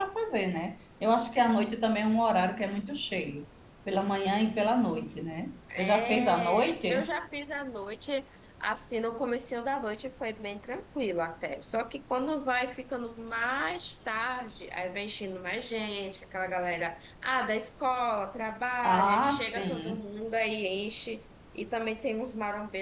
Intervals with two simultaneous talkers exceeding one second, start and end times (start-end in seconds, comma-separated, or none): 5.8-7.1, 18.8-20.1